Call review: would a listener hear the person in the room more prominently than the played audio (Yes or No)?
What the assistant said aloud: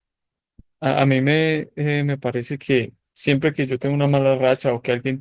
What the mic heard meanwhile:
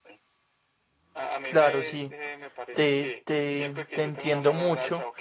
Yes